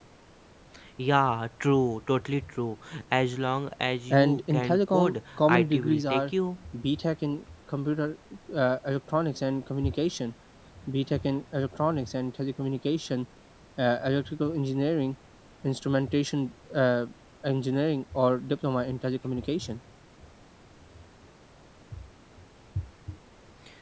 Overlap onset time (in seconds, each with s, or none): 4.1 s